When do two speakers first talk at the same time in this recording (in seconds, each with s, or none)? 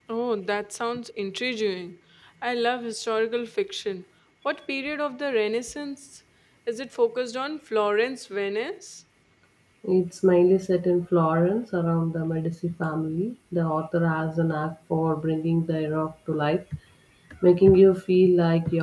none